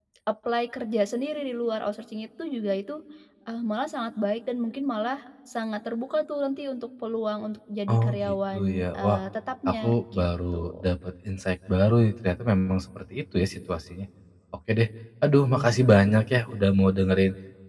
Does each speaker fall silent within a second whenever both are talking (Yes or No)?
No